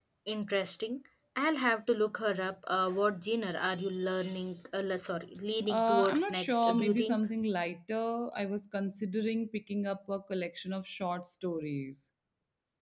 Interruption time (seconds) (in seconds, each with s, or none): 5.7 s